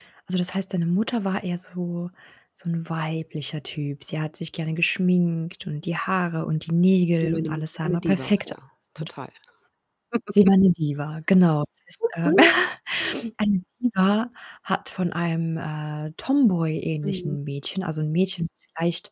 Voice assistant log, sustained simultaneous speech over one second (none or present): present